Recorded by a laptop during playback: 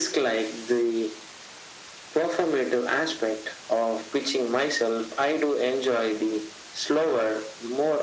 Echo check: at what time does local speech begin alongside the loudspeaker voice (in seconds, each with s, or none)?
none